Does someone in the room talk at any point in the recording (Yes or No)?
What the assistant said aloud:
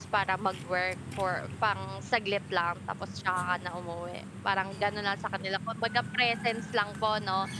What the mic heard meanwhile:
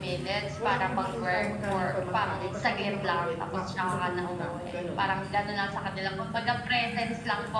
Yes